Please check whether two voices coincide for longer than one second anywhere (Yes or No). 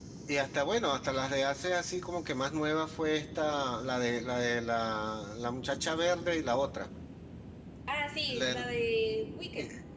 No